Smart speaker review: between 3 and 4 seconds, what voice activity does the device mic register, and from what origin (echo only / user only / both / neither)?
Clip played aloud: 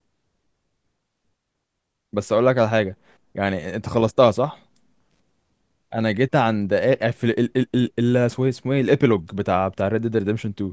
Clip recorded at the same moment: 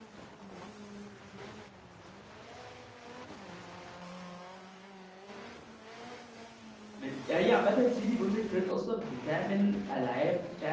neither